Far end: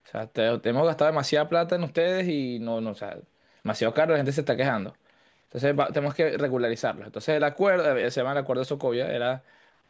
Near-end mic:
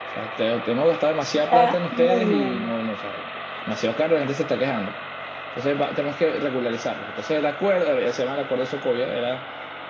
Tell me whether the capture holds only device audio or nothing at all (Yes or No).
No